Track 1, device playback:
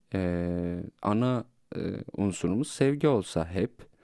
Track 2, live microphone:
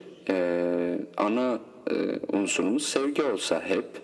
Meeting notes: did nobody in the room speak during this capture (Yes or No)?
Yes